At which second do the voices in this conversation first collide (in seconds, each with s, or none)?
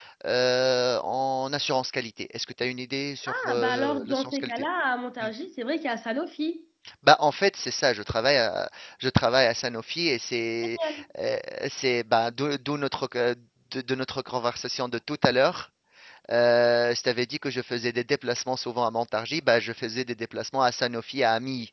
3.3 s